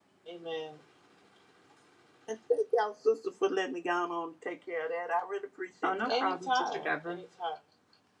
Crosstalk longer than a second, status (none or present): present